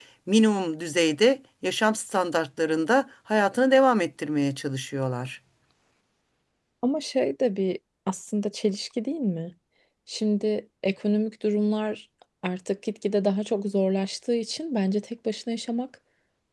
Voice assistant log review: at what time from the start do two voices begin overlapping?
none

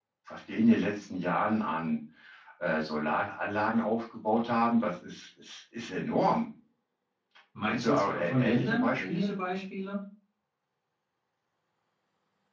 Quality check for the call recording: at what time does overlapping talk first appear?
7.6 s

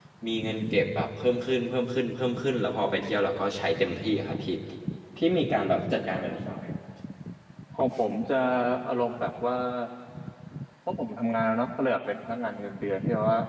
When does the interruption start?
none

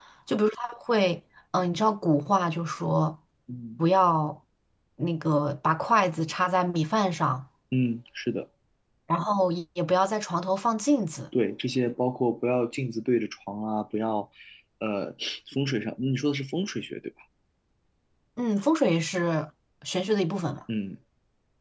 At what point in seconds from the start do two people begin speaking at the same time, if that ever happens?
none

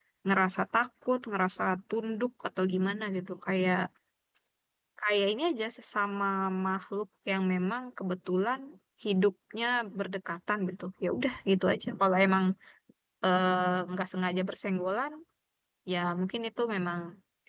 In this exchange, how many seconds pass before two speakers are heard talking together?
none

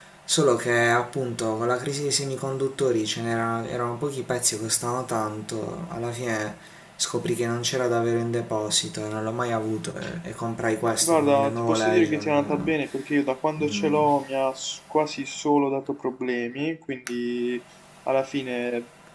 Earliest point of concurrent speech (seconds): 11.0 s

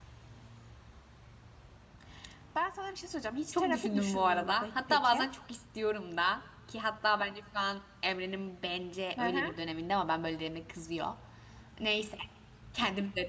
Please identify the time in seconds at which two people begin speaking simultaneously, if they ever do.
3.5 s

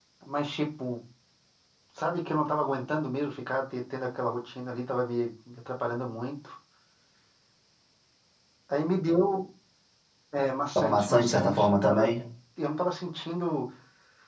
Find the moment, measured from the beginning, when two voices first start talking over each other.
10.8 s

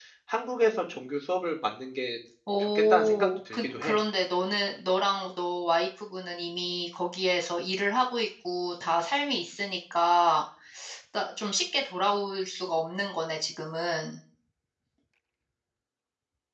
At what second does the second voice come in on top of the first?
2.6 s

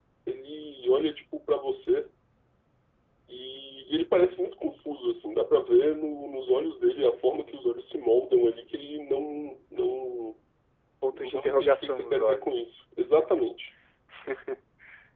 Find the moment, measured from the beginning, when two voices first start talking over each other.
11.1 s

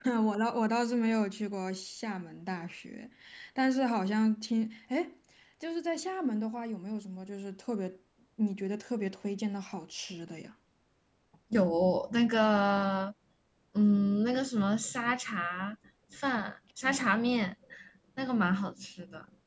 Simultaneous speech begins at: none

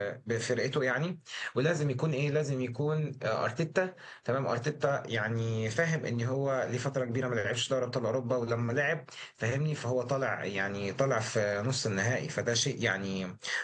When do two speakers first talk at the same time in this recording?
none

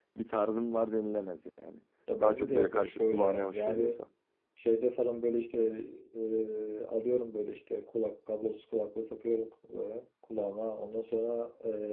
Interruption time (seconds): 2.2 s

